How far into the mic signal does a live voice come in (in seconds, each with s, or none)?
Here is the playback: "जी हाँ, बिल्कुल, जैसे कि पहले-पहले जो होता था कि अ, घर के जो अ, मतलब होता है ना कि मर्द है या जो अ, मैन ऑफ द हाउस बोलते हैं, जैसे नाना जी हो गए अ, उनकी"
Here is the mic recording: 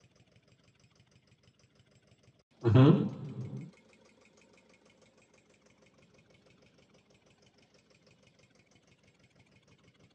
2.6 s